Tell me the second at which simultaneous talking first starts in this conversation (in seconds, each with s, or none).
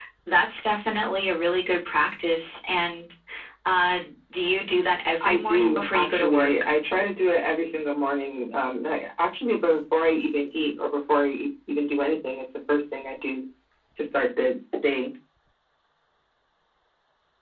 5.1 s